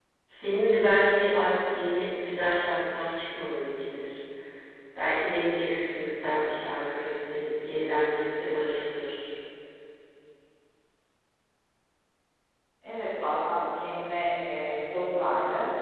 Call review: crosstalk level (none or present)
none